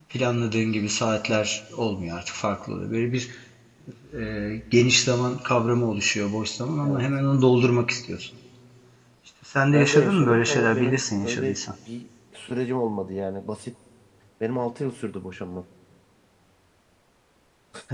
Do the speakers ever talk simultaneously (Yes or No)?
Yes